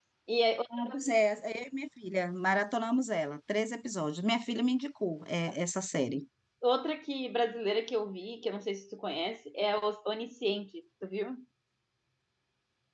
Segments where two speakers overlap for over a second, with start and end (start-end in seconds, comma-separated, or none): none